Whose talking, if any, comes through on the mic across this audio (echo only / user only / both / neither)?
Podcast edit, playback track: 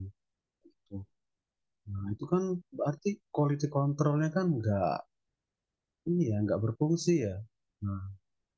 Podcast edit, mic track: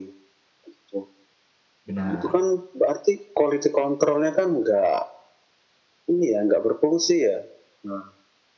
both